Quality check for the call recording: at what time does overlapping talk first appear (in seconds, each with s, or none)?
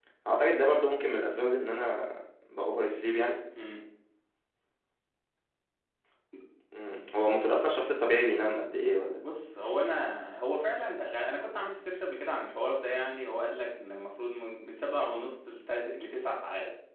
none